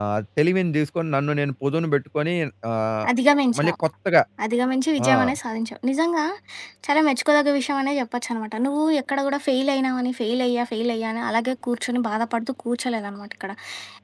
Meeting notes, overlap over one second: none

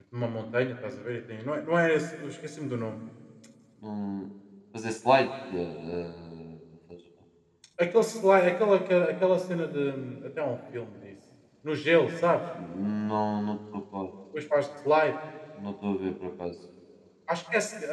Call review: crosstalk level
none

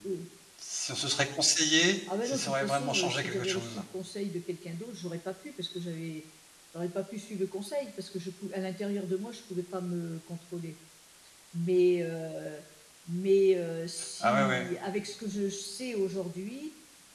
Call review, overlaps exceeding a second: present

